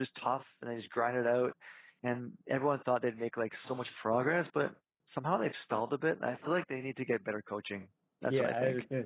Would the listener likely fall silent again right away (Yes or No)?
No